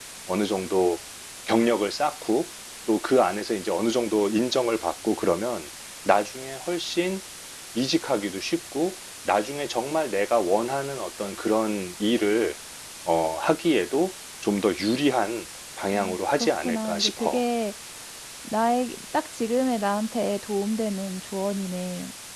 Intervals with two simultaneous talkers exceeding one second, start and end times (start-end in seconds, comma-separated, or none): 15.9-17.4